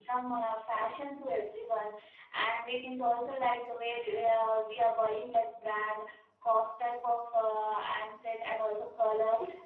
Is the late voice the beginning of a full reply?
No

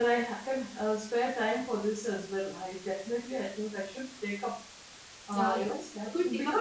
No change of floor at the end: No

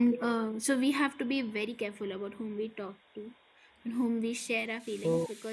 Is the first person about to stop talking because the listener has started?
No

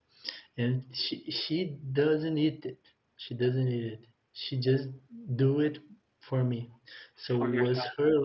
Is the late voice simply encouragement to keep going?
Yes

